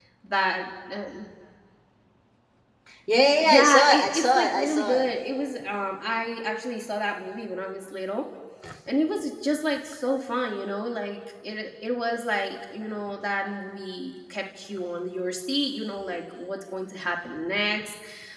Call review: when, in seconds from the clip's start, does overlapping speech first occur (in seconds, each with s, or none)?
3.4 s